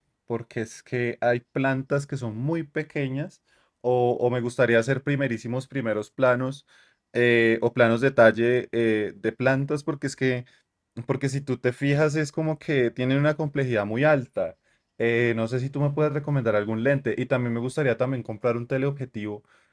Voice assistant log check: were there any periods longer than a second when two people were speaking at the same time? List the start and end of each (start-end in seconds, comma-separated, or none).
none